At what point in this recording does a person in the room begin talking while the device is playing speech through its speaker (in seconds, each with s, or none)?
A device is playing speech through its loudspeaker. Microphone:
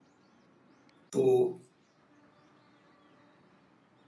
1.1 s